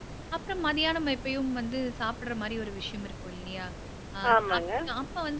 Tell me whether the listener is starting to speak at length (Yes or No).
No